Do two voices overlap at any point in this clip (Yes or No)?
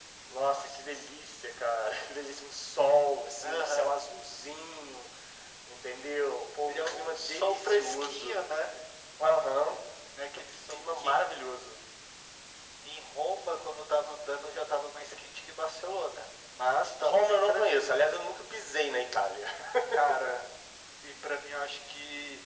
Yes